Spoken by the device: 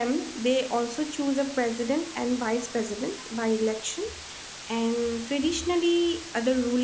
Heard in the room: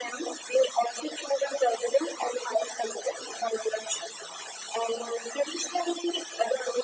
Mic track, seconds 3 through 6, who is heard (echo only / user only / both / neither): echo only